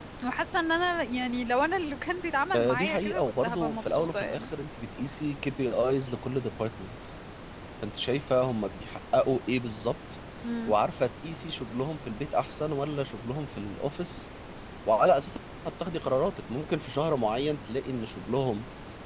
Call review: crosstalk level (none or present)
present